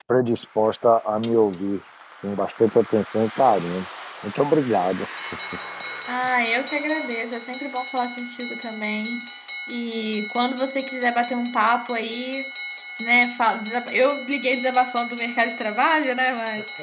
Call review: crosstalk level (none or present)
none